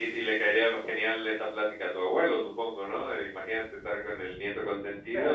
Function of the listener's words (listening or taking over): taking over